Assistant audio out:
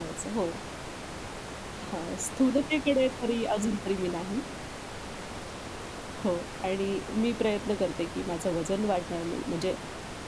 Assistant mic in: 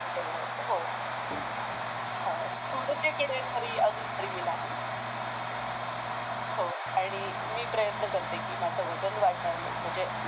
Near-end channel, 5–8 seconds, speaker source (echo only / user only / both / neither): echo only